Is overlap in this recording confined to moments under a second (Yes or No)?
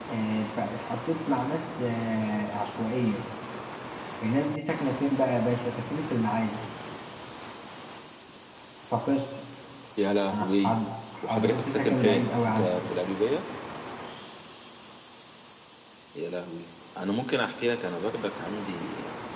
No